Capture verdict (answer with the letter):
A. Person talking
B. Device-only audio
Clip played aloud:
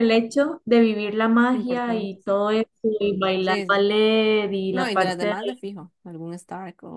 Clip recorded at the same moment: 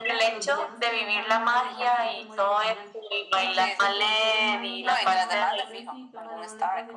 A